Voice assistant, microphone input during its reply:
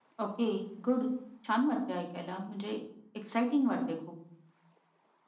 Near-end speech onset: none

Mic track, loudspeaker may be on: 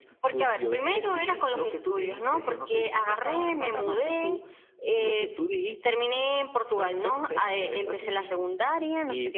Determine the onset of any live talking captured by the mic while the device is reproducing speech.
none

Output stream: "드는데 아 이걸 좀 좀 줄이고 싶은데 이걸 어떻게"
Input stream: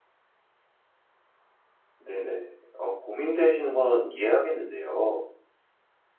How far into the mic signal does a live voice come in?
1.9 s

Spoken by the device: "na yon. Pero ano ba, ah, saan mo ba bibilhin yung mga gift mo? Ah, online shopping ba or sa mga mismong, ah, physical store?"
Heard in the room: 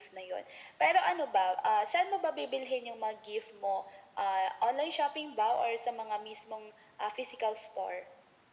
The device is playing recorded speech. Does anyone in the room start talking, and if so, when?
none

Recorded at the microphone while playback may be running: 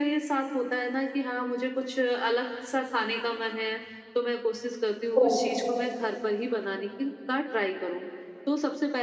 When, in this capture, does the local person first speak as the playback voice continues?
5.2 s

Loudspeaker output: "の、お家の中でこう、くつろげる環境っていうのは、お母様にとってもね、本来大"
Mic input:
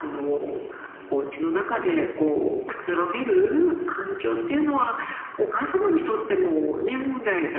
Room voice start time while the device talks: none

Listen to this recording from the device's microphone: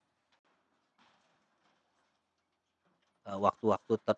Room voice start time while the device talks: 3.3 s

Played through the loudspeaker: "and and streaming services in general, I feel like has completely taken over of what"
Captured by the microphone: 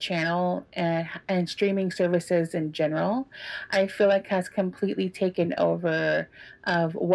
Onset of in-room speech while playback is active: none

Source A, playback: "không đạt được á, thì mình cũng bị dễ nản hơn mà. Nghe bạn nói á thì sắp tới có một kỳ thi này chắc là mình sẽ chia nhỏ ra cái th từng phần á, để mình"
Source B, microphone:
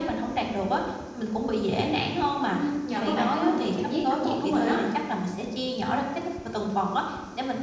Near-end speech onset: 2.5 s

